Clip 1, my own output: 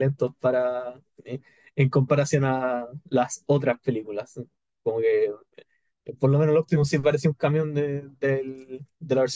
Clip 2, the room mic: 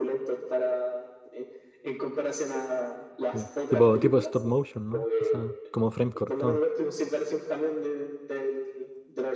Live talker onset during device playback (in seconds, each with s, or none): 3.3 s